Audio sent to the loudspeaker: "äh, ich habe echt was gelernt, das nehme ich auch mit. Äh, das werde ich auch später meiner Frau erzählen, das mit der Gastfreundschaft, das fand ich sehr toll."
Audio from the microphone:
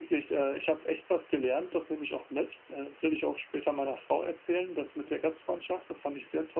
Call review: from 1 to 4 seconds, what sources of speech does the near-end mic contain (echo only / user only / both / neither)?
echo only